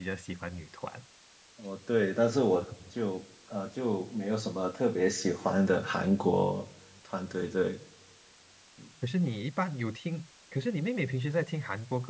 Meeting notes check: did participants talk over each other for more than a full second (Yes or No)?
No